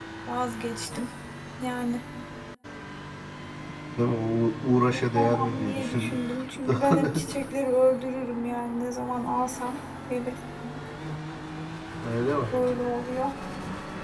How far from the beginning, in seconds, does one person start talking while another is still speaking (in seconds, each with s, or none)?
4.9 s